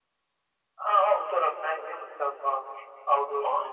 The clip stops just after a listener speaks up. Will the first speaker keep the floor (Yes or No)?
No